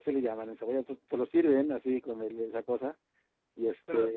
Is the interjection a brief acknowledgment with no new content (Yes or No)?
Yes